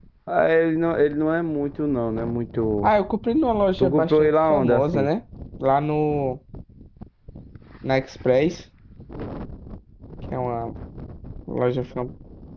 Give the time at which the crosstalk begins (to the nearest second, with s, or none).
4 s